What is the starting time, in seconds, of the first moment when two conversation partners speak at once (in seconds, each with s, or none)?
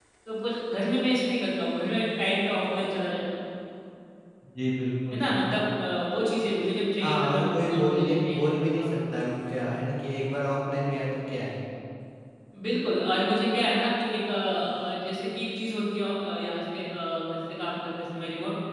7.0 s